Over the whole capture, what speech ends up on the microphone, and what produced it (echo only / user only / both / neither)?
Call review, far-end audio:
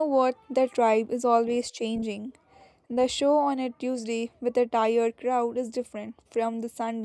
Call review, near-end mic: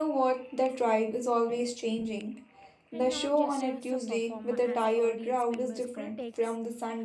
both